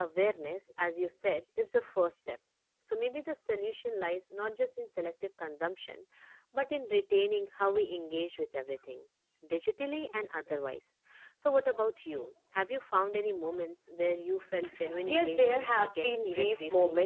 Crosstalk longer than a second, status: present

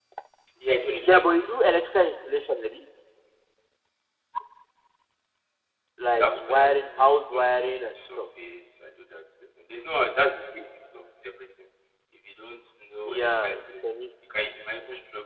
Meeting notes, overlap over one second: present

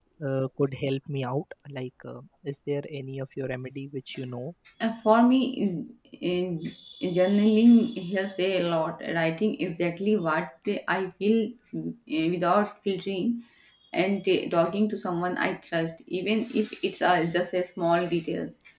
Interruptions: none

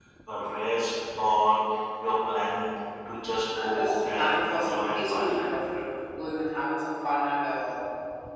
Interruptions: present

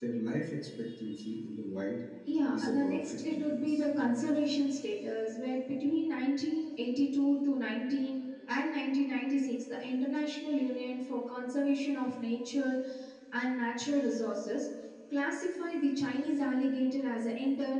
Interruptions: present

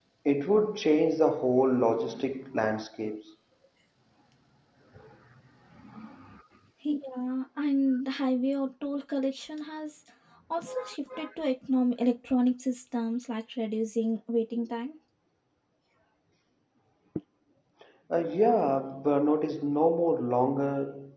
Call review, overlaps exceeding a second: none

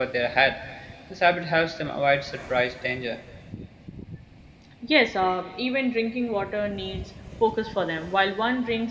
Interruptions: none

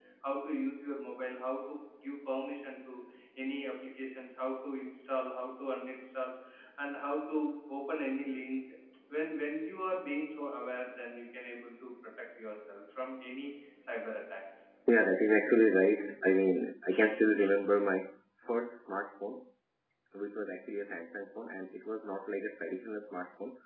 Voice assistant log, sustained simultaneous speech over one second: none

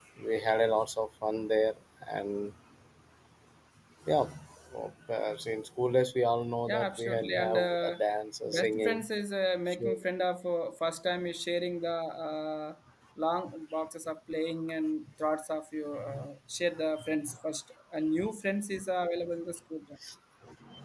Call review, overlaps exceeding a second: present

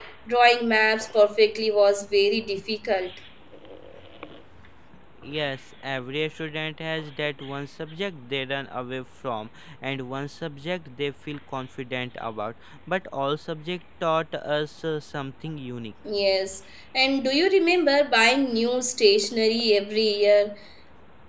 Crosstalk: none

